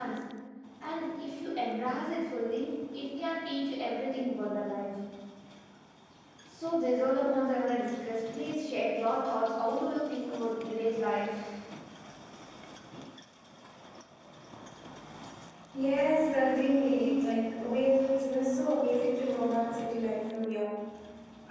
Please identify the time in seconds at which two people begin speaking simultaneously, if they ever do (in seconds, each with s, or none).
none